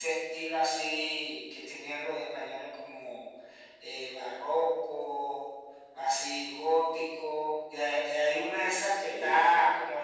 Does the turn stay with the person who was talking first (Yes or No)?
Yes